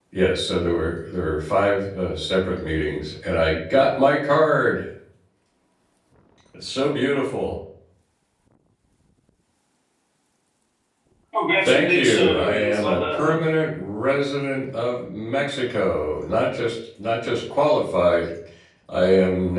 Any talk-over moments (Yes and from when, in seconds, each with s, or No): Yes, from 11.7 s